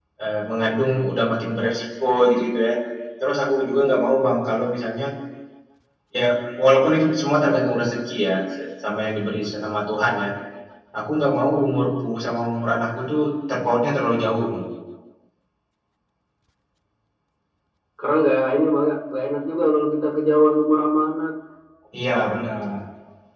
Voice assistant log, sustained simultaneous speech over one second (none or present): none